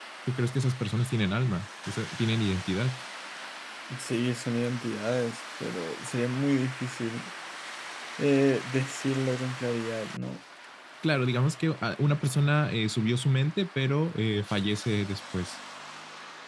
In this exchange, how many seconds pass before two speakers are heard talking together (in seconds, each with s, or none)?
none